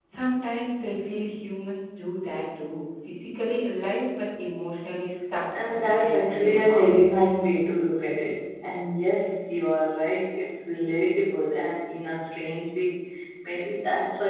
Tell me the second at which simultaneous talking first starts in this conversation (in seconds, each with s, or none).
5.5 s